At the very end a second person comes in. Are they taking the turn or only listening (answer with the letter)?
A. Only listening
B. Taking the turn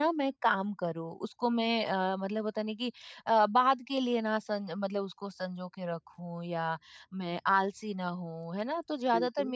A